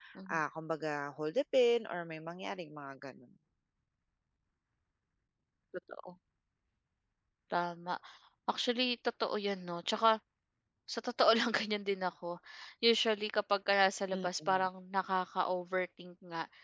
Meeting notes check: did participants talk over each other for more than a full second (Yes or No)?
No